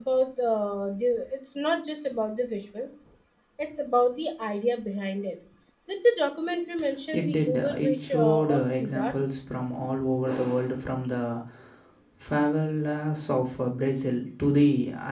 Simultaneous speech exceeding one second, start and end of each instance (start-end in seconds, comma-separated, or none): 7.1-9.1